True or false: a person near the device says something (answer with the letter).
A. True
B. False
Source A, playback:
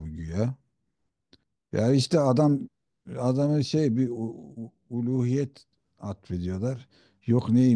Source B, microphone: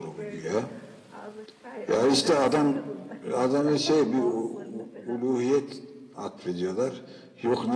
A